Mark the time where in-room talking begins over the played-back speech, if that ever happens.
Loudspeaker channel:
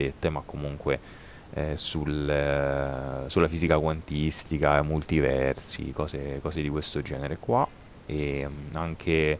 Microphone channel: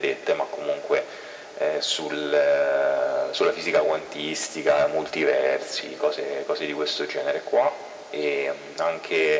none

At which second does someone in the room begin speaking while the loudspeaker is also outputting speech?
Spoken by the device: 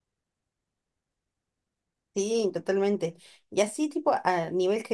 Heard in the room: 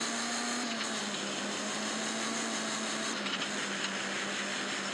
none

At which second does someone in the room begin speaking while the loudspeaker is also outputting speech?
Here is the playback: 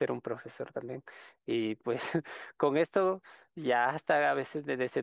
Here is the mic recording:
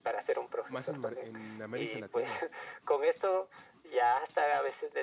0.7 s

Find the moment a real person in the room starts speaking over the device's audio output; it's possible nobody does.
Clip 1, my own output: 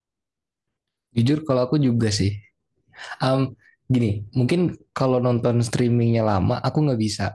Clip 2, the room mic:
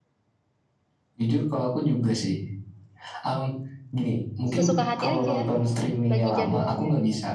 4.5 s

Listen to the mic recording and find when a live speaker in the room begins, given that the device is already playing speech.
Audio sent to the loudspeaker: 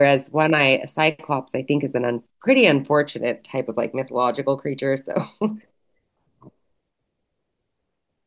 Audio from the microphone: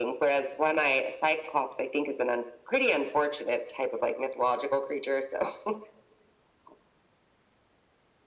none

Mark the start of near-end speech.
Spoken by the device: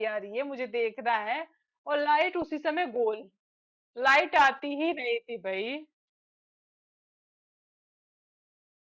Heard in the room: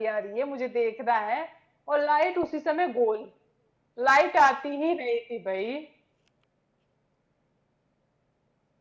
none

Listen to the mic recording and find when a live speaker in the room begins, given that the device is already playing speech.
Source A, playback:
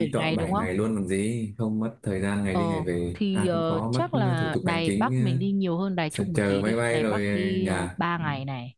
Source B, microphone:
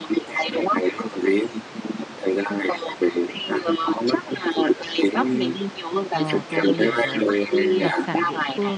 6.1 s

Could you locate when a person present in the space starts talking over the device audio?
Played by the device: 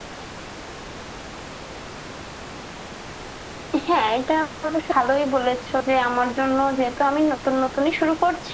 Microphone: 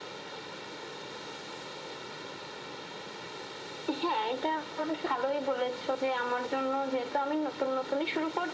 none

